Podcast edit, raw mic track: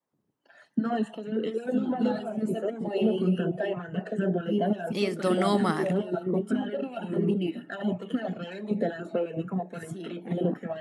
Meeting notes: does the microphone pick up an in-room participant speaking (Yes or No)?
Yes